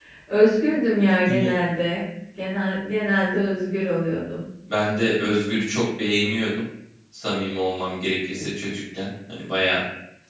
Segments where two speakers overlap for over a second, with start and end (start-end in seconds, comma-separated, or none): none